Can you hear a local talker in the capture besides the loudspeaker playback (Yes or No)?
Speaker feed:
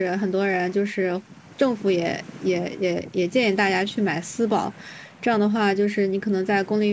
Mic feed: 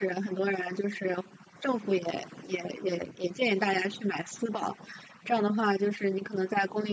No